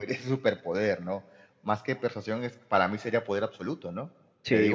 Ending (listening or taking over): listening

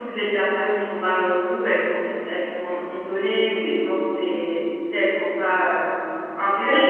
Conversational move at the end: listening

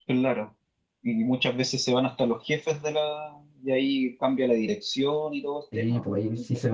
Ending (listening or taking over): taking over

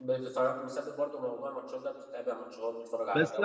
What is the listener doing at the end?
taking over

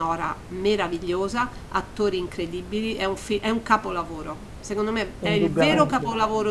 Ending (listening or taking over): listening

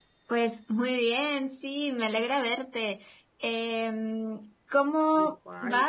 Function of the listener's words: listening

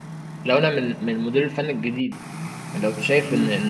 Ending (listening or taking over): listening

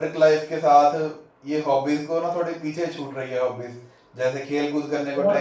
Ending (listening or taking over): listening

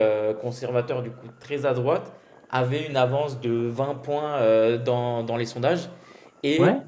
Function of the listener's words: listening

